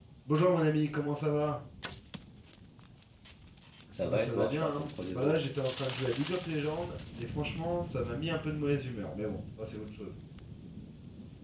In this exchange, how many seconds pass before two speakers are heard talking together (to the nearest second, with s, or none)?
4 s